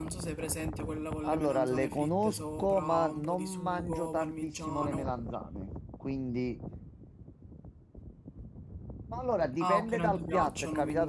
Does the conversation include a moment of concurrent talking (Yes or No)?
Yes